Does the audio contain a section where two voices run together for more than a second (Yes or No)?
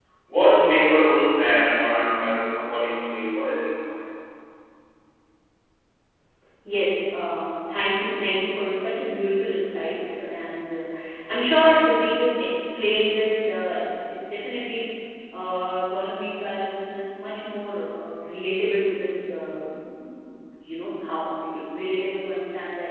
No